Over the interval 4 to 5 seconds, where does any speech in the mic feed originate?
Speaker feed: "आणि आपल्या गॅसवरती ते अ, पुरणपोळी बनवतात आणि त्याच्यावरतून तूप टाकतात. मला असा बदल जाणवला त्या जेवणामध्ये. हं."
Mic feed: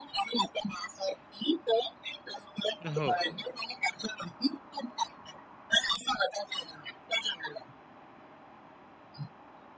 echo only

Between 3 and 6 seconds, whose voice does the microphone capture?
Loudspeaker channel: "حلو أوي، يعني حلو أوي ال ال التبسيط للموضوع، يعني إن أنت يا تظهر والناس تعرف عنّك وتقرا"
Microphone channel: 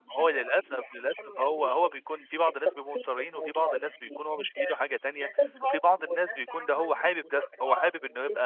both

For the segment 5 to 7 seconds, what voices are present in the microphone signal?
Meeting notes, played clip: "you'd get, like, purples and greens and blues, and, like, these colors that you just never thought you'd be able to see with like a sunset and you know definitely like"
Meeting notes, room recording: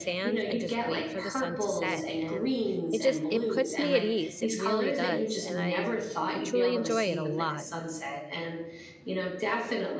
both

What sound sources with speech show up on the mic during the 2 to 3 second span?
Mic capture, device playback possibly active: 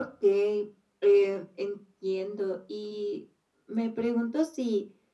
echo only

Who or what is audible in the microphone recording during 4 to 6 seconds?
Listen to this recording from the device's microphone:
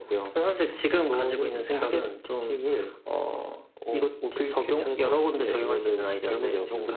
echo only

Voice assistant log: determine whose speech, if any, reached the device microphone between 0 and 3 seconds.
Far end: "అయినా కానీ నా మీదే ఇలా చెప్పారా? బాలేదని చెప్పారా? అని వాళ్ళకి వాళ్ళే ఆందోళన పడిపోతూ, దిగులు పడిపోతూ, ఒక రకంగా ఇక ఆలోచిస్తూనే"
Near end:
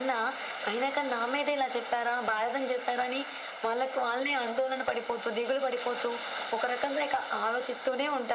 echo only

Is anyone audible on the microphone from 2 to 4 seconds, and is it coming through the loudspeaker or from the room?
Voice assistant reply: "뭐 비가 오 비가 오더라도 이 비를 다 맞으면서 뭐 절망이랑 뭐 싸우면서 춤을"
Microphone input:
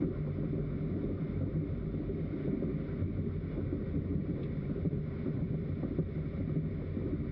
neither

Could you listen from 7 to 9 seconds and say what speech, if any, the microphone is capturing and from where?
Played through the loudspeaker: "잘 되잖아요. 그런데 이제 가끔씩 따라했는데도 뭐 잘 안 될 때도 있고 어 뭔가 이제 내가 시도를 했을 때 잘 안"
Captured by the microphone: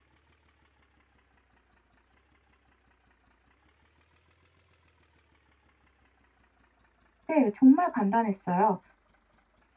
user only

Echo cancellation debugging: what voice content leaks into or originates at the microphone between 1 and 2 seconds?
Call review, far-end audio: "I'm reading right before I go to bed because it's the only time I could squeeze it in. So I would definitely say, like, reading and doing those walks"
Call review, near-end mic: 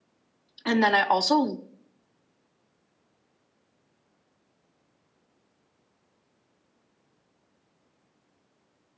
user only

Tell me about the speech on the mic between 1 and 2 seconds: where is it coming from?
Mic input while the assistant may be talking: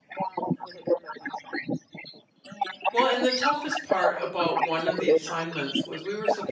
echo only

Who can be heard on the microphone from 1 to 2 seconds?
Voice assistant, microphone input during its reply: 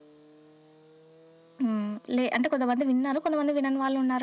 user only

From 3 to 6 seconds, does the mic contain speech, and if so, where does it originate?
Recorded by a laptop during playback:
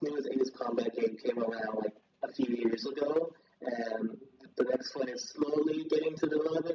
echo only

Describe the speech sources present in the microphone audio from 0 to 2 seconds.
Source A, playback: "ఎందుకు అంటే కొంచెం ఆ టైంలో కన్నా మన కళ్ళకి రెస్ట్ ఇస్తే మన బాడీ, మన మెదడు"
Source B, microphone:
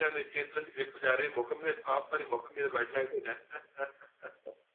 user only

